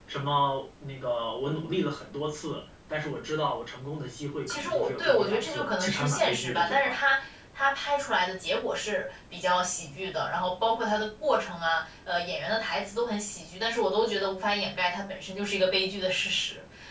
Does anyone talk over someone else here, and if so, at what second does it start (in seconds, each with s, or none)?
4.5 s